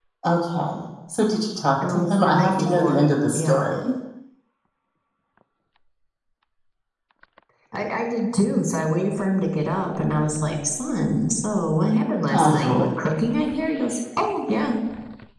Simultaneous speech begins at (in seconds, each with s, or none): 1.9 s